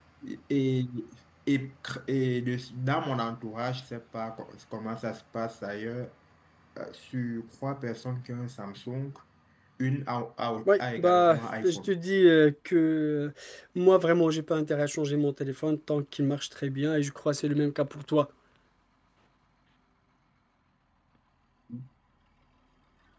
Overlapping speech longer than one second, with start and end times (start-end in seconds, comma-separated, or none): 10.7-11.9